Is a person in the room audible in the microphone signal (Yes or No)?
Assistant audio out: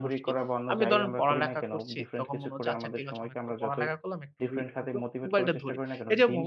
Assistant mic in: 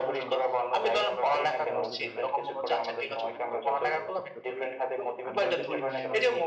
Yes